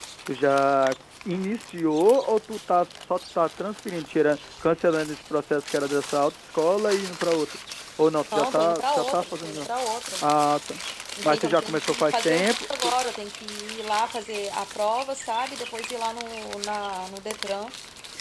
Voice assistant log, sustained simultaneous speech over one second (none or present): present